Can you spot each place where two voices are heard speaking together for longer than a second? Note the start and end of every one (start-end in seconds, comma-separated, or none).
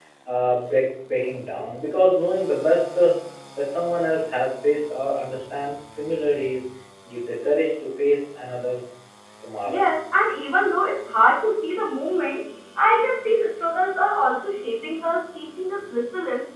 none